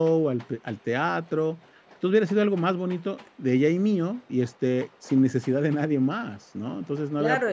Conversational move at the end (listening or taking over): taking over